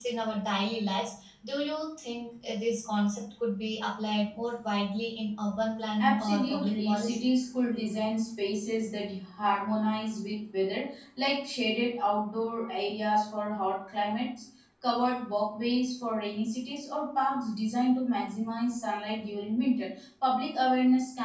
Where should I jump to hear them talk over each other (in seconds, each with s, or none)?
6.0 s